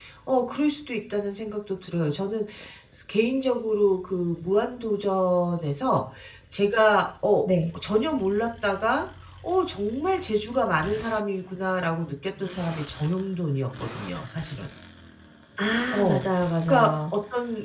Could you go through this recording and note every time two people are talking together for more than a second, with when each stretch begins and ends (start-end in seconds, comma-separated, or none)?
none